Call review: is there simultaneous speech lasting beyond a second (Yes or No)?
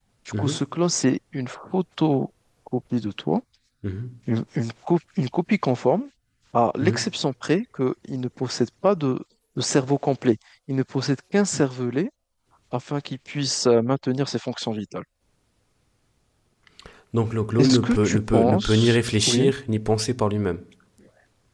Yes